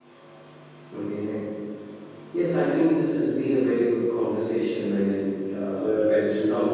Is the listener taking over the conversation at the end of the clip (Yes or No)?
Yes